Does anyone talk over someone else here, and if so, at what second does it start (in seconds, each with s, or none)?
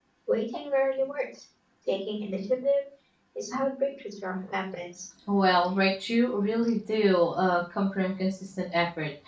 none